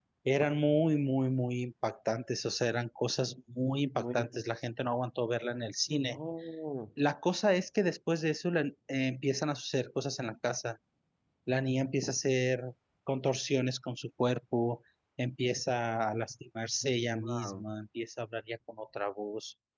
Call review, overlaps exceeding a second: none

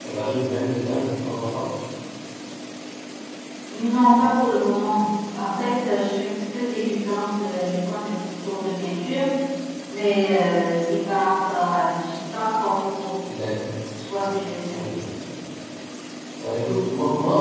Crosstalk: none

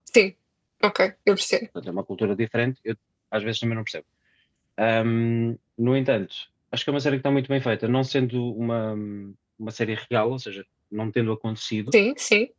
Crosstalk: none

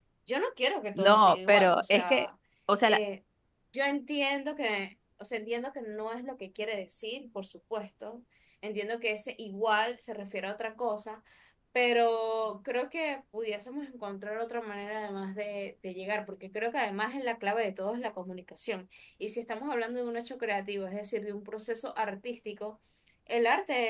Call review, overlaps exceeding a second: present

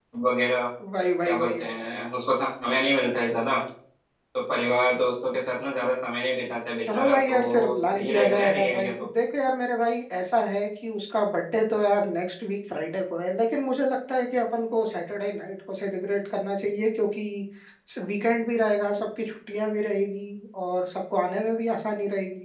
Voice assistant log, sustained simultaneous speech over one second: present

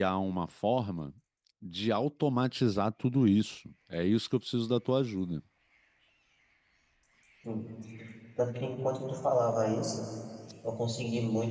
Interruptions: none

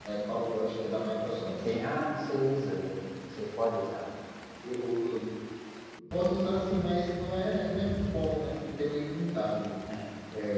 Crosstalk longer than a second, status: none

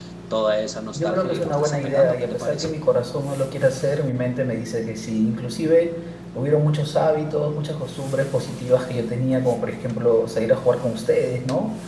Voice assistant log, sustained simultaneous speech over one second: present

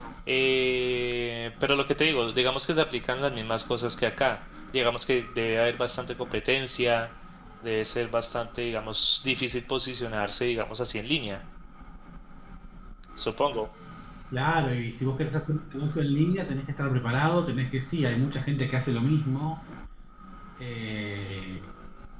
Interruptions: none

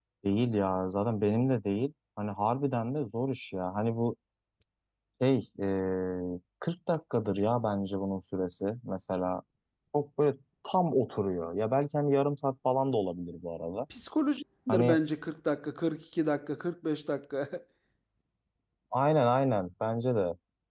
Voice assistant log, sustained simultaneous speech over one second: none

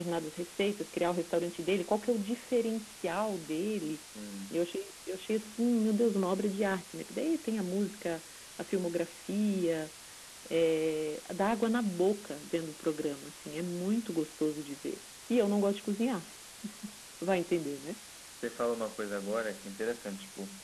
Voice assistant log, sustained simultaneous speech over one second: none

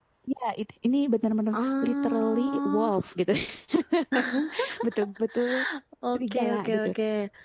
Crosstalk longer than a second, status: present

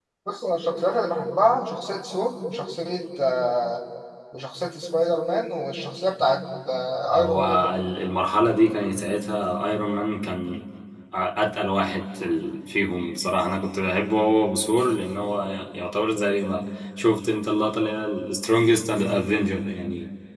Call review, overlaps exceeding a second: none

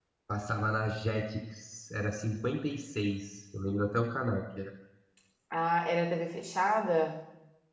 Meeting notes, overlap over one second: none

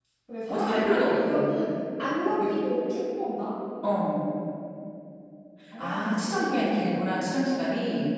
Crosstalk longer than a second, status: present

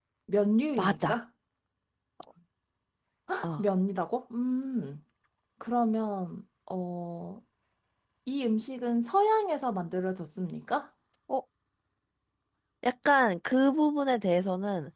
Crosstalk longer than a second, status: none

